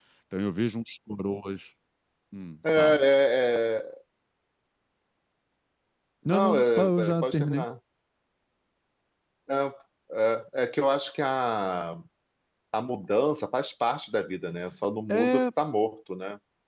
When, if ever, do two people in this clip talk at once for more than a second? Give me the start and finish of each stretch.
6.3-7.6

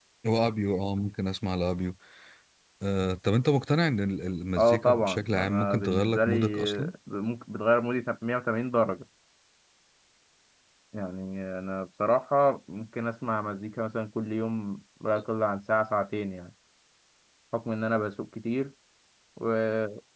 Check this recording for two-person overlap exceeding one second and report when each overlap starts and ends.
4.6-6.9

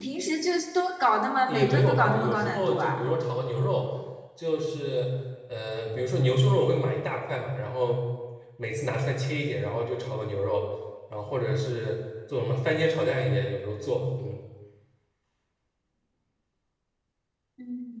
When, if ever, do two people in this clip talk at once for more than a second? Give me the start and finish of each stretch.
1.5-3.0

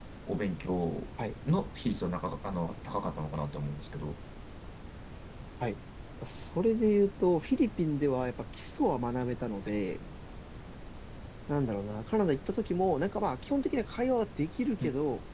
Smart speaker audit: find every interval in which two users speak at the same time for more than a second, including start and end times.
none

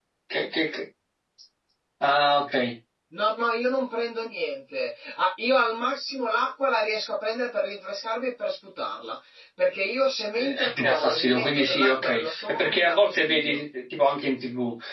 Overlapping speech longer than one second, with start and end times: 10.4-13.6

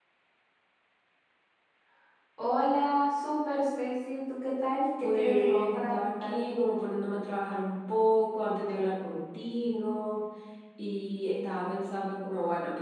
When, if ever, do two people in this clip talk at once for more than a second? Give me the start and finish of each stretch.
5.0-6.5

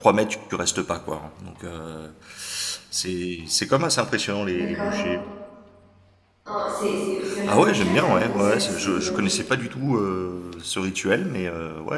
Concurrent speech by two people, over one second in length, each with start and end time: 7.5-9.3

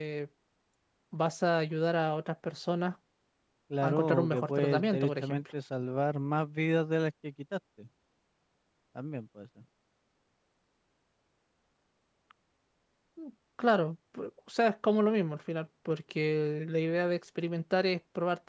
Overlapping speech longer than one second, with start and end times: 3.8-5.4

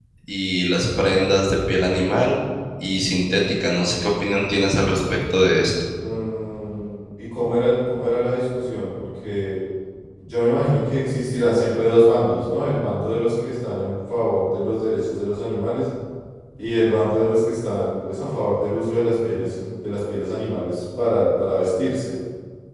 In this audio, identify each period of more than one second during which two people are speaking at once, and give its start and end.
none

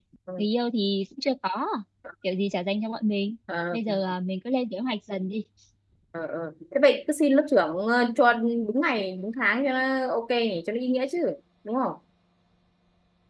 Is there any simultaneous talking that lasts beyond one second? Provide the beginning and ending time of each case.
none

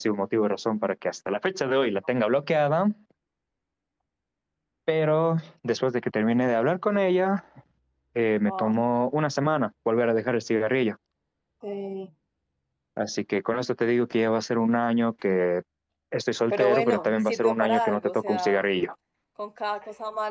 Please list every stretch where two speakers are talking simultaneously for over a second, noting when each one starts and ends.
16.5-18.6

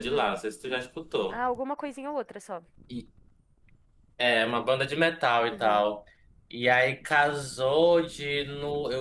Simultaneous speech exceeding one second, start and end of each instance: none

